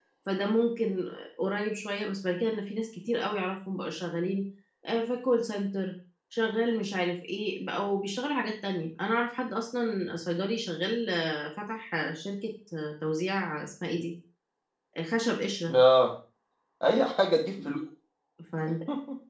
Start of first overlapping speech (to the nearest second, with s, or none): none